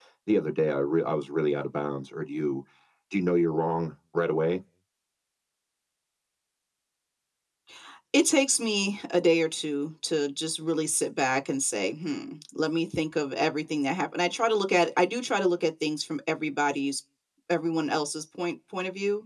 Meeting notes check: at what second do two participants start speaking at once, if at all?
none

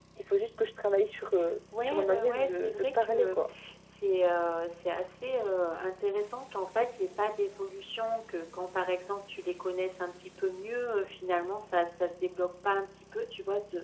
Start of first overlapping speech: 1.7 s

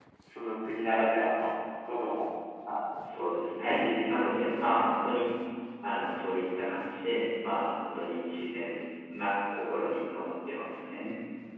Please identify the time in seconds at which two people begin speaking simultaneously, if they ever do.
3.6 s

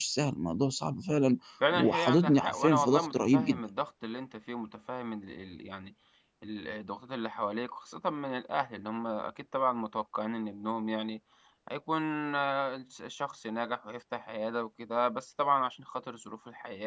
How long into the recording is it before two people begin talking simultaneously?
1.6 s

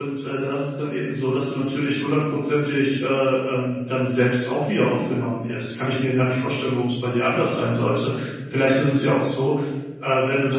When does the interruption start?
none

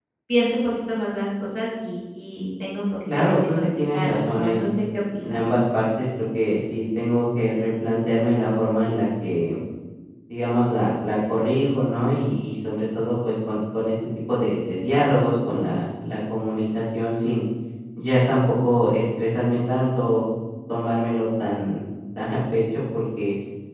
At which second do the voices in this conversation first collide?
3.2 s

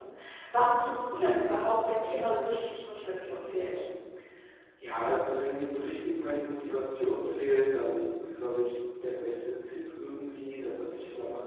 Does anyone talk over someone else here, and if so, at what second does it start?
none

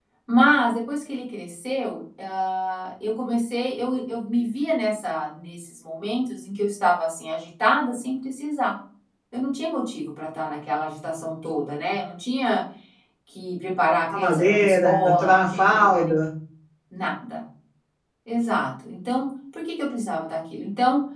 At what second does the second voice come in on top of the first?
14.1 s

